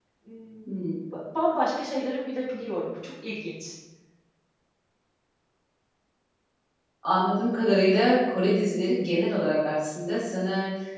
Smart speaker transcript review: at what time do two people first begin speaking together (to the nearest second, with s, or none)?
none